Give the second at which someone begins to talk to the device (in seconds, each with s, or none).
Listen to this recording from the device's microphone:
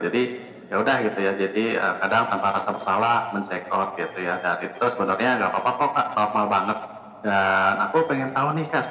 none